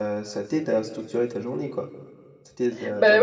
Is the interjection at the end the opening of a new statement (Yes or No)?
Yes